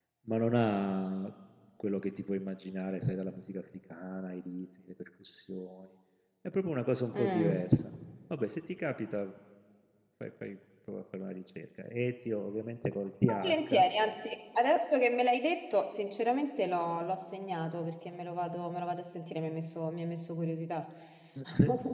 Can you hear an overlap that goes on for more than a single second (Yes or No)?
No